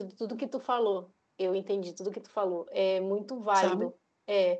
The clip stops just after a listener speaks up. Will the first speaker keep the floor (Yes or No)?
Yes